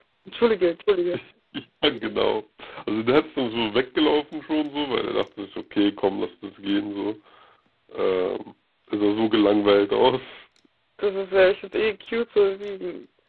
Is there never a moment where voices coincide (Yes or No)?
Yes